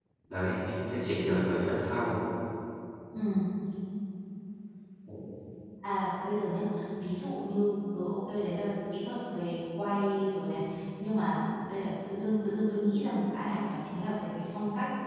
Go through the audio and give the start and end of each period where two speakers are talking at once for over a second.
none

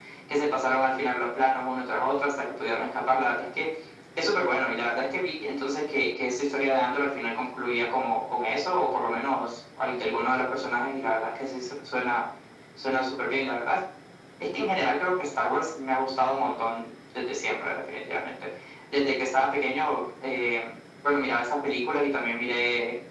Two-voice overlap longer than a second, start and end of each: none

